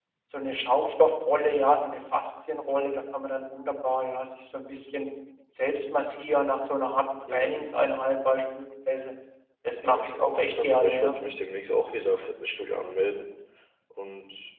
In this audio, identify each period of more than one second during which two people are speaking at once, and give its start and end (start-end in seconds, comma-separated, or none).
9.8-11.2